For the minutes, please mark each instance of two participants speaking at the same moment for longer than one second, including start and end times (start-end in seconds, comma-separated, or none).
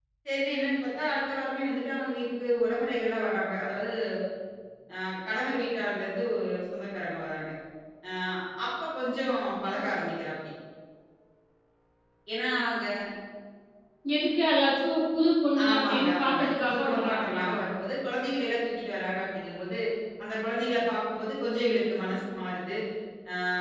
15.7-17.5